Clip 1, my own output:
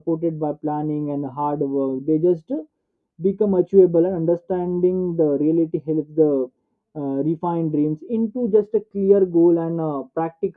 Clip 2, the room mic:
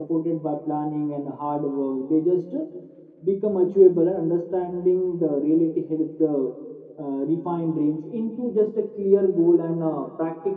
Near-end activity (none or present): none